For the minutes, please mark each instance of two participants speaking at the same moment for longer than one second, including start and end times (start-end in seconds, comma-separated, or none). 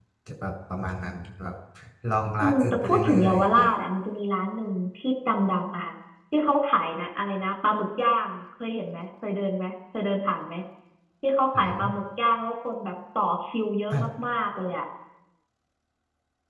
2.4-3.6